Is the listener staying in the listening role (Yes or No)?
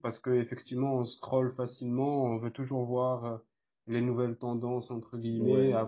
Yes